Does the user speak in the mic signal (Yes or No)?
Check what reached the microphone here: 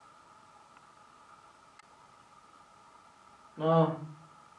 Yes